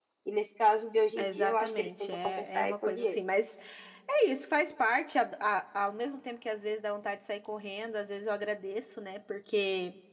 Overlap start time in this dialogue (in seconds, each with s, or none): 1.2 s